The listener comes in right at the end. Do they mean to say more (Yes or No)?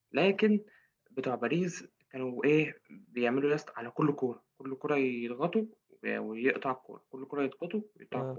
No